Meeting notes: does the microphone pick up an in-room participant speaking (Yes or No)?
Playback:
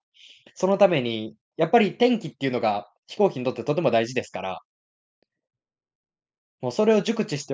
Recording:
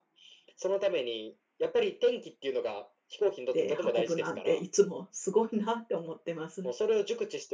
Yes